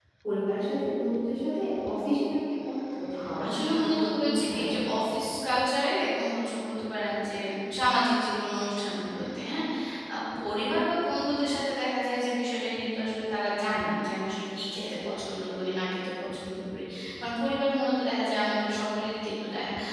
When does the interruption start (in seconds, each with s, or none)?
3.4 s